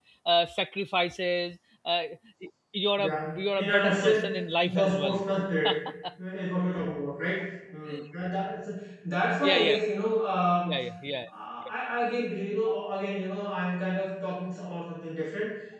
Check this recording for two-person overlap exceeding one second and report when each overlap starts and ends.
3.0-5.2

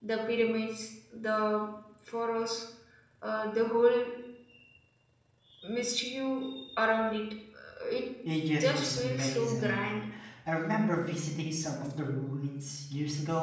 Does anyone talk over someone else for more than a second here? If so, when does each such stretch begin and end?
8.6-9.9

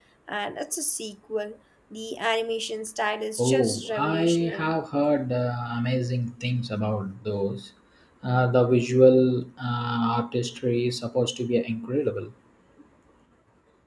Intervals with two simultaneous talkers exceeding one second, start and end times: 3.4-4.8

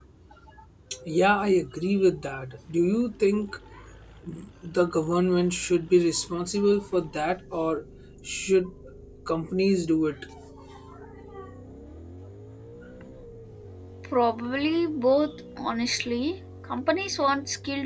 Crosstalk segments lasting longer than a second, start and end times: none

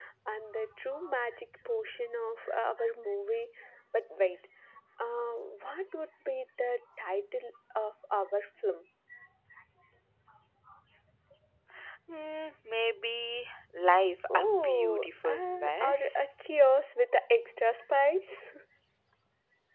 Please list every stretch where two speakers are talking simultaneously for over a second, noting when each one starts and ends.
14.3-16.3

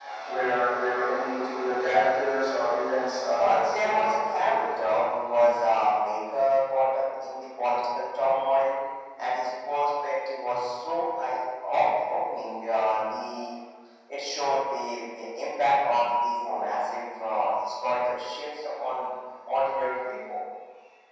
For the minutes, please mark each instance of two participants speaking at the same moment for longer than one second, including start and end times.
3.4-4.6

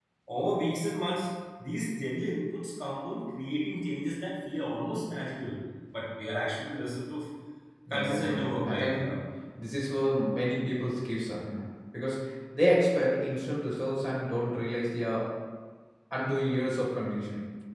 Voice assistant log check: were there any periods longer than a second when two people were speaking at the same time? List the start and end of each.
7.9-9.1

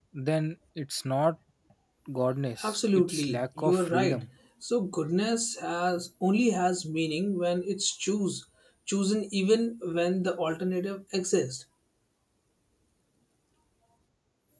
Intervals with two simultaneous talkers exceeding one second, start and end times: 2.6-4.3

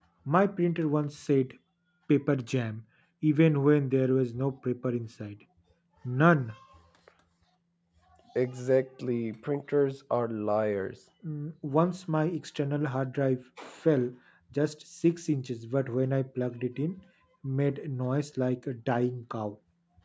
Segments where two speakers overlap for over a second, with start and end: none

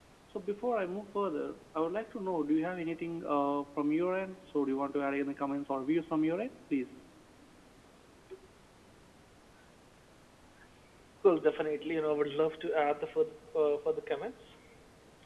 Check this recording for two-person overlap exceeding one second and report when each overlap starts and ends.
none

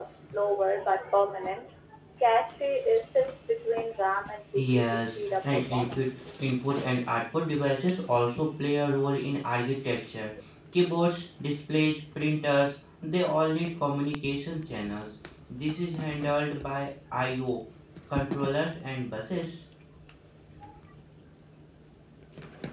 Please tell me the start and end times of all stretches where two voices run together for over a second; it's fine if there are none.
4.5-6.1

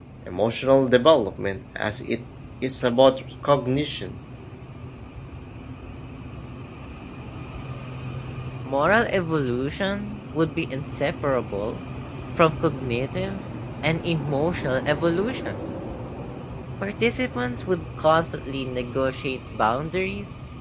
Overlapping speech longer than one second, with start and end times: none

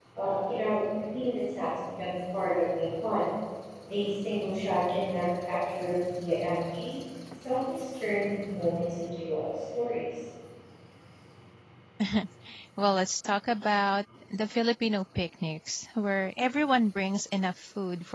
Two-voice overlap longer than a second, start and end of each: none

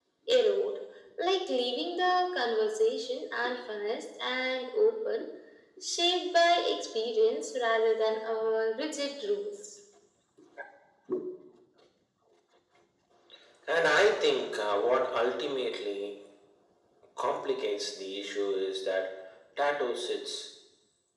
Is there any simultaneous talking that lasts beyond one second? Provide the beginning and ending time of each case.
none

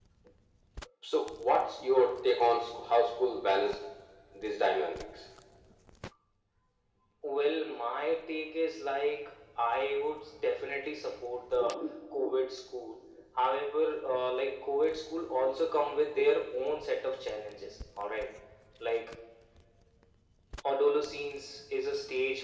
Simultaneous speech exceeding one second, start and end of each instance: none

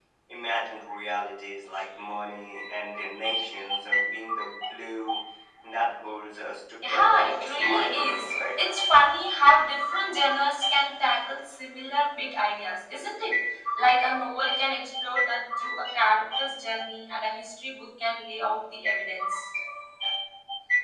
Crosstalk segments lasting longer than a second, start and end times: 6.8-8.6

